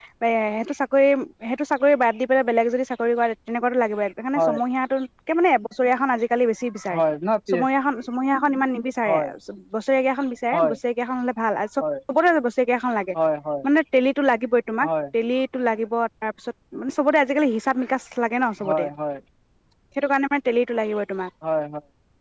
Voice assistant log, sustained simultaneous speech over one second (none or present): none